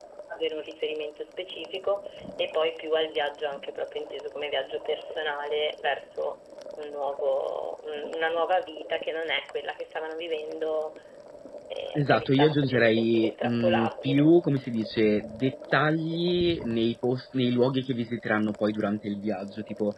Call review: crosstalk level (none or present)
present